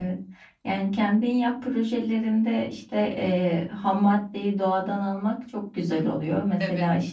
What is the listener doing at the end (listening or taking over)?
listening